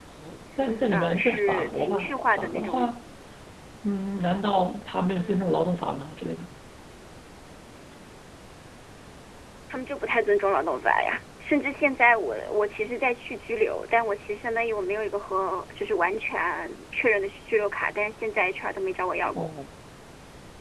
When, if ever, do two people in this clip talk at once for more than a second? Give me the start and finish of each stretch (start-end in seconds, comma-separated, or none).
0.9-2.8